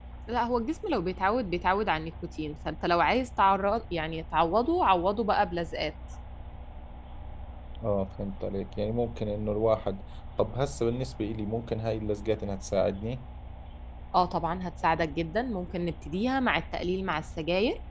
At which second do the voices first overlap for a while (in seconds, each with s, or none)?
none